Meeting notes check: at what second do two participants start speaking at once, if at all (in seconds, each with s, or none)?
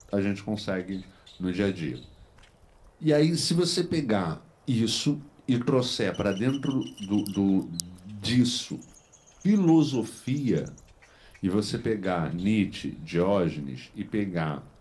none